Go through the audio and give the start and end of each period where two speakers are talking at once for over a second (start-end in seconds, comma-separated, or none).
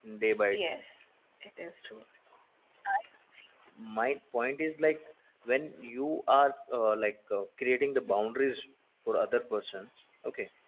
none